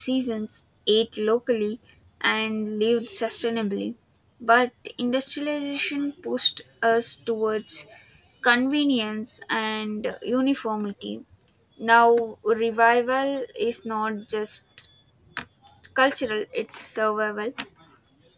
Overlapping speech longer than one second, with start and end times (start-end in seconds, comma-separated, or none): none